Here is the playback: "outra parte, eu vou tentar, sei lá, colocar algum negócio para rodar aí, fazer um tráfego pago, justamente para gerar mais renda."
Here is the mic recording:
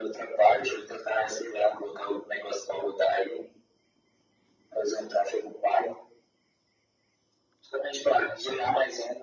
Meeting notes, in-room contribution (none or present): none